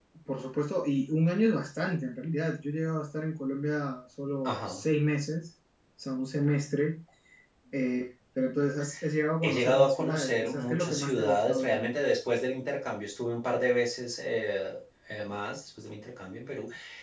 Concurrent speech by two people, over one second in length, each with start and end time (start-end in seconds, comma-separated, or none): 9.4-11.9